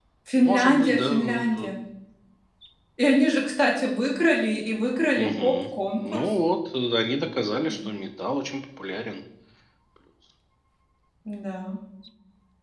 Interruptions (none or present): present